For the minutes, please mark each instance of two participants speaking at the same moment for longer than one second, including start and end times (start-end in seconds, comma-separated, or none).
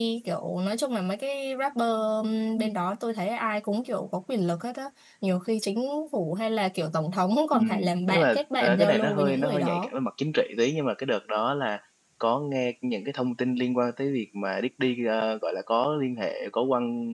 8.1-9.9